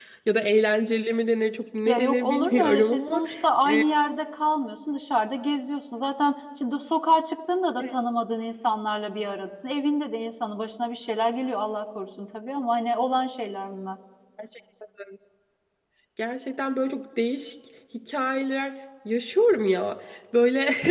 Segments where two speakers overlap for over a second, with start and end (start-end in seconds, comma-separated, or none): 1.9-3.2